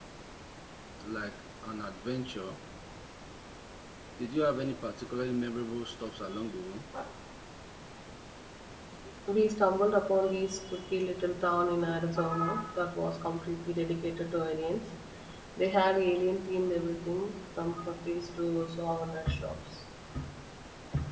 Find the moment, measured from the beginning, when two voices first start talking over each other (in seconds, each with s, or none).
none